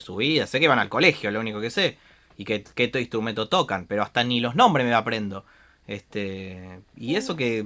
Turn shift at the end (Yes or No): No